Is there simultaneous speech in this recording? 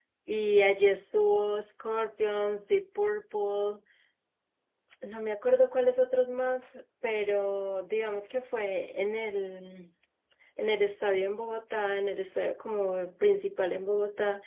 No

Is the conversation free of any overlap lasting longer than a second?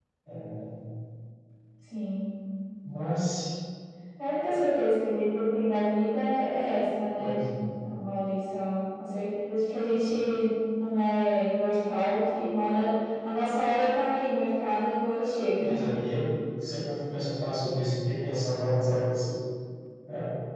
Yes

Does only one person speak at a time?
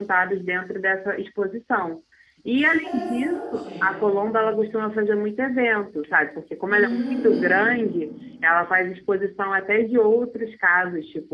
No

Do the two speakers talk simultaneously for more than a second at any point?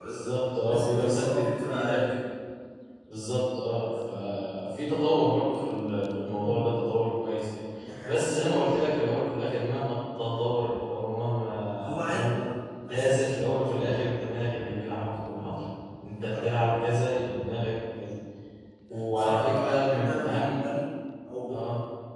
Yes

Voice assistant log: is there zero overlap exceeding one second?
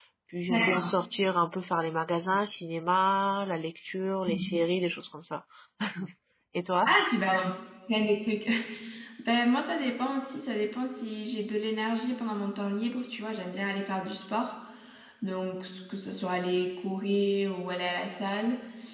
Yes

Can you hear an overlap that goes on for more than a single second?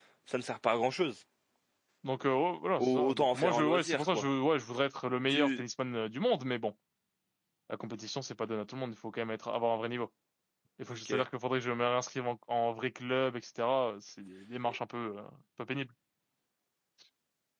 Yes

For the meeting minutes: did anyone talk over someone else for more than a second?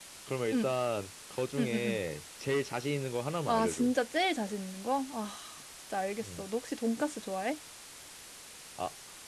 No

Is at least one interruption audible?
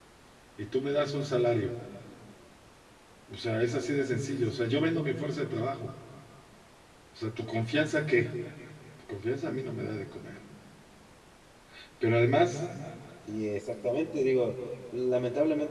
No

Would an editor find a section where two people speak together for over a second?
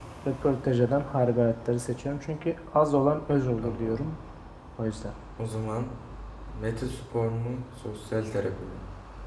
No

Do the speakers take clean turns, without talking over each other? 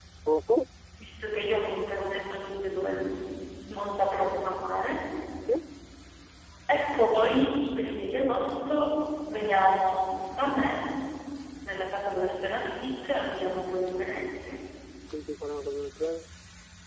Yes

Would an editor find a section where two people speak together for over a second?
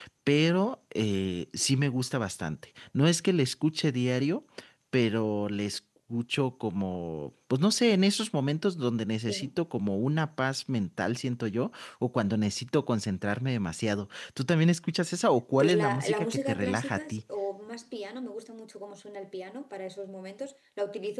Yes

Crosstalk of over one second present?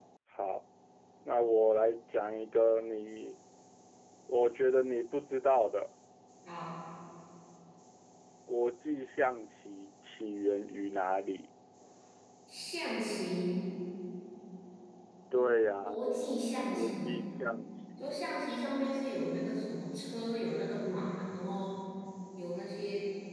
No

